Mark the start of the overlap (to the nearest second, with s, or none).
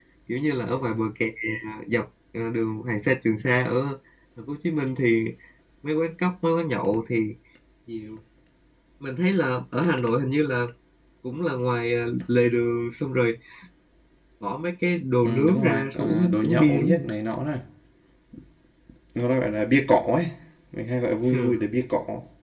15 s